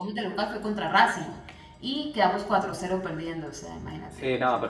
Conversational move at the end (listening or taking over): taking over